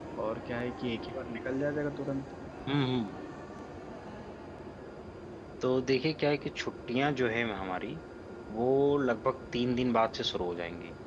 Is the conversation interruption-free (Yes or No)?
Yes